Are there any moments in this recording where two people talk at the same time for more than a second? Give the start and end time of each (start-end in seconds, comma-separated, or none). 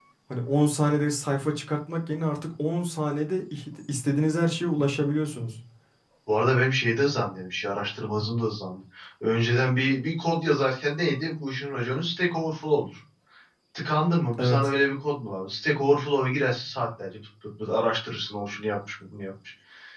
none